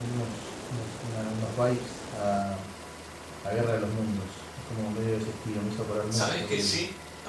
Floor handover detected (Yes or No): Yes